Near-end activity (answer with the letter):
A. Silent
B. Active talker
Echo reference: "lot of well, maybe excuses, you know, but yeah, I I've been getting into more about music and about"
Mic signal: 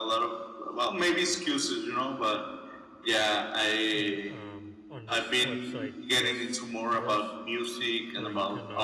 B